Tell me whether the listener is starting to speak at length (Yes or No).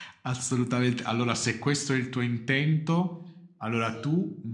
No